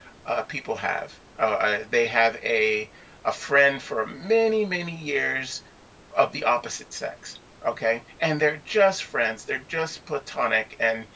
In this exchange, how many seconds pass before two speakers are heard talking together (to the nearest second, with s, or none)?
none